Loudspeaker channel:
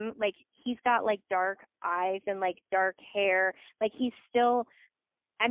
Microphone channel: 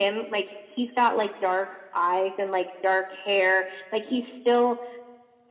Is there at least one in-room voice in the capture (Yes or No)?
No